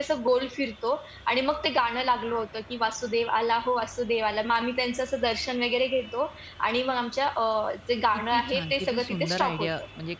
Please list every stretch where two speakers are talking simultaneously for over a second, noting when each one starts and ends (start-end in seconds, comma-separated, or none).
8.3-9.7